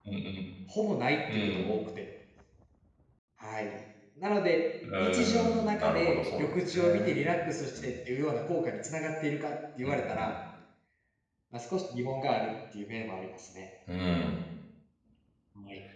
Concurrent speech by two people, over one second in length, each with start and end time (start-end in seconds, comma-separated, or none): 5.0-7.2